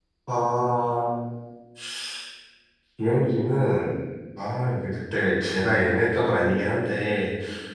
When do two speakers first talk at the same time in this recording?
none

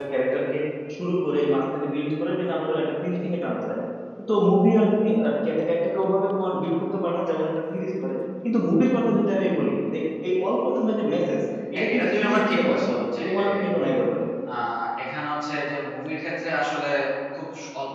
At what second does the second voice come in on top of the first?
11.7 s

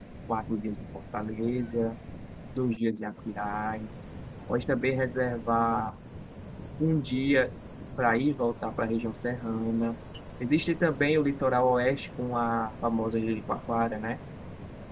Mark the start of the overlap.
none

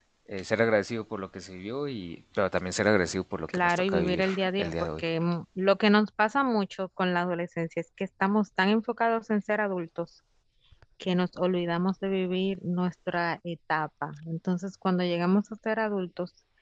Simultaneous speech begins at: 3.5 s

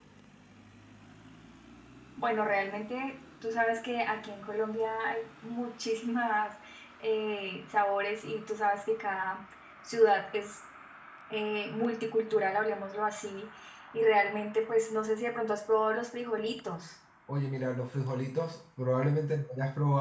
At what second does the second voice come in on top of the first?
none

